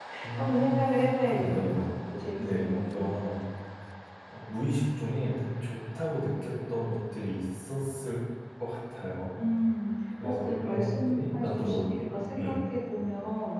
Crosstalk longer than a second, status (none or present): present